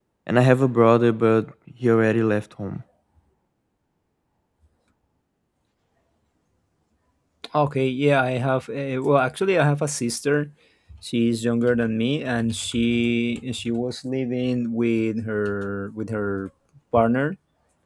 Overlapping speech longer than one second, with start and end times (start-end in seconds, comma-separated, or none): none